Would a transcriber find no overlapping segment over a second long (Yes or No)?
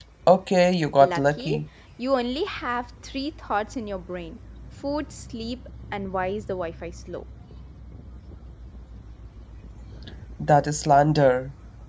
Yes